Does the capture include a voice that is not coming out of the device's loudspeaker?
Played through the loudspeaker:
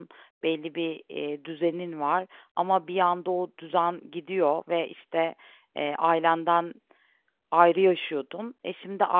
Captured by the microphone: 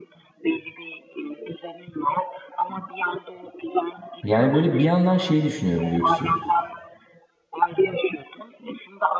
Yes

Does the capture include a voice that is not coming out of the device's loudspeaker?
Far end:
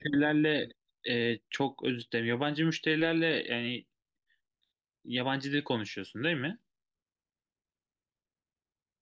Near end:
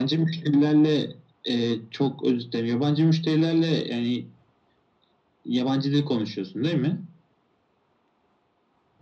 No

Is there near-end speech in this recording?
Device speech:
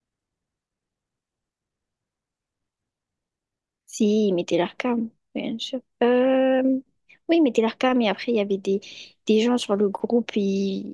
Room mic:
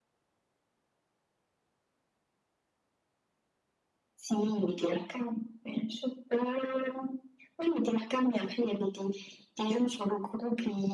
No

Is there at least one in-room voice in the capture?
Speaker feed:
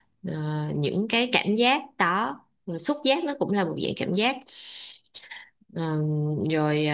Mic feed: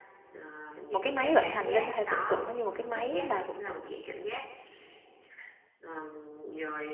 Yes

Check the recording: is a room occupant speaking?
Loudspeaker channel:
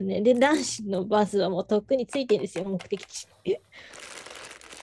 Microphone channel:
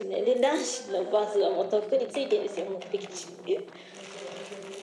Yes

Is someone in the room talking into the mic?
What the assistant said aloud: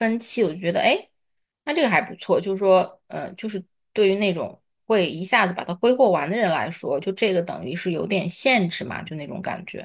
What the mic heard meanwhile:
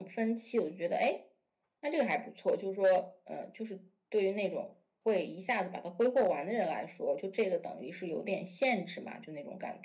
No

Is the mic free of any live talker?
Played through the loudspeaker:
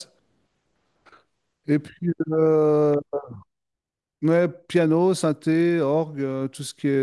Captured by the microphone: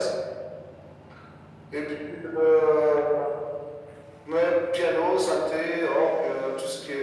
Yes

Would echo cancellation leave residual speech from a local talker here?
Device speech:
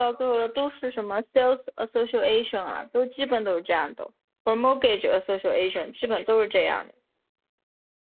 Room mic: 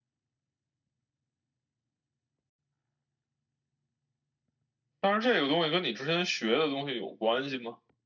Yes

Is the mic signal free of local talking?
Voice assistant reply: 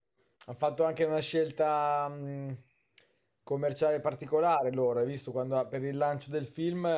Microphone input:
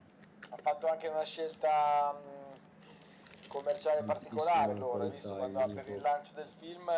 No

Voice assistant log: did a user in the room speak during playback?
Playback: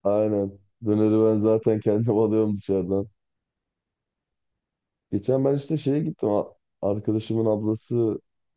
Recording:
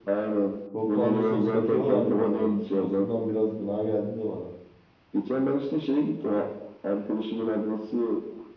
Yes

